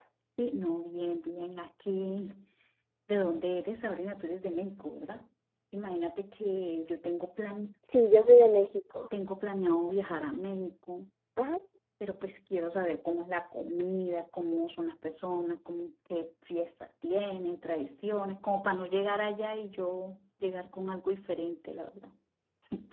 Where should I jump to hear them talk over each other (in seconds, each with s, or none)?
none